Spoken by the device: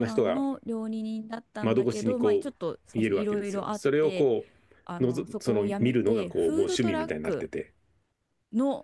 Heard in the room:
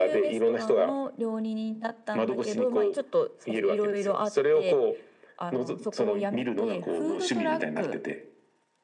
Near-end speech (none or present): none